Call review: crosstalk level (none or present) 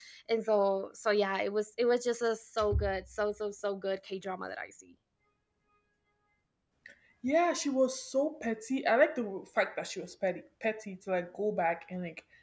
none